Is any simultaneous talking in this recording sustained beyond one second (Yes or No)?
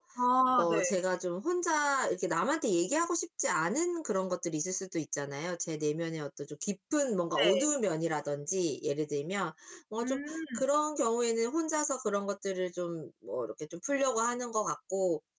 No